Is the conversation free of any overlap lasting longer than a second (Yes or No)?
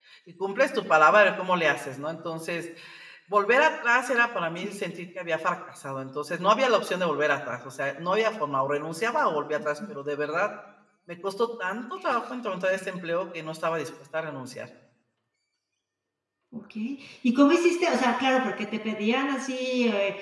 Yes